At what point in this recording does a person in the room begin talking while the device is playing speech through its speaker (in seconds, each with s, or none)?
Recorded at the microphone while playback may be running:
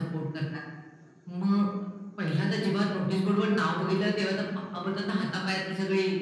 none